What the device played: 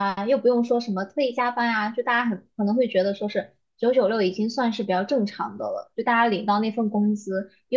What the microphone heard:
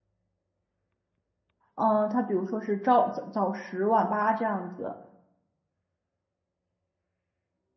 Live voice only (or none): 嗯、呃，他比如说是朝早早十晚八这样子，